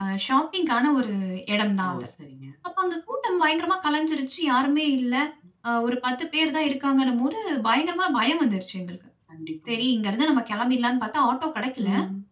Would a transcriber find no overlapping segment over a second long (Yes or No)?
Yes